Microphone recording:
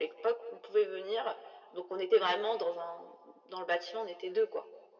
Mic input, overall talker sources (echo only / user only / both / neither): echo only